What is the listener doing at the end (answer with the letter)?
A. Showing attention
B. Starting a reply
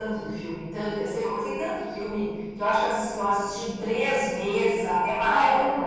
A